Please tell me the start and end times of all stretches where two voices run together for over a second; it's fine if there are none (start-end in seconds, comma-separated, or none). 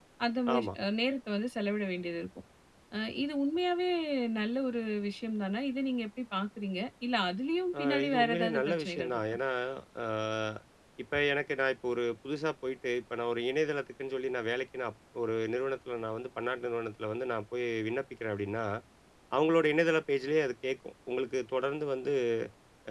7.8-9.2